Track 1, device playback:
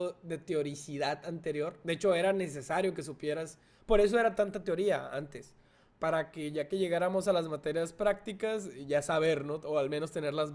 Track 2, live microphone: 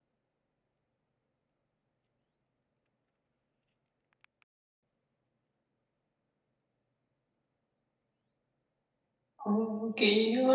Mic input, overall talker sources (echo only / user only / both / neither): user only